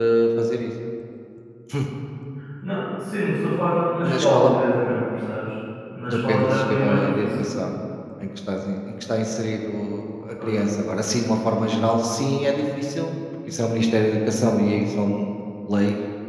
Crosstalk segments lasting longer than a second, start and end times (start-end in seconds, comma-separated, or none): 6.1-7.4